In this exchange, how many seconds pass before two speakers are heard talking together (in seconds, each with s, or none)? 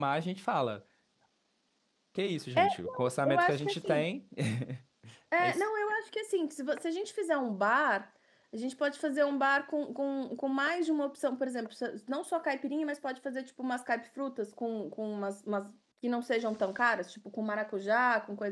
2.5 s